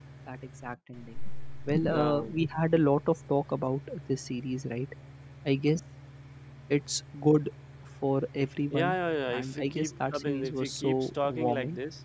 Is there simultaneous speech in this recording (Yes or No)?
Yes